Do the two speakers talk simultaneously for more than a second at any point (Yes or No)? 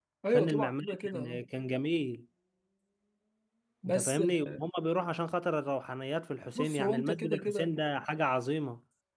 Yes